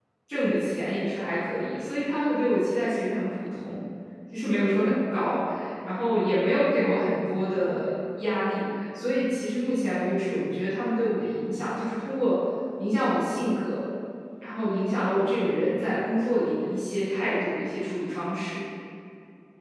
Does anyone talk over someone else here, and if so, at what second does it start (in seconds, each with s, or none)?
none